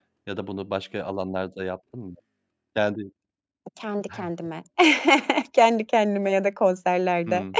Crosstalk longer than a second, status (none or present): none